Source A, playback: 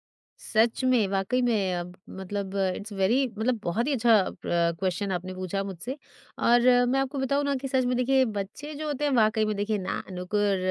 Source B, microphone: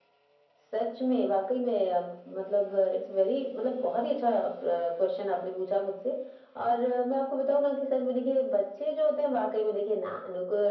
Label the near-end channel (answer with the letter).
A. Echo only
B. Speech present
A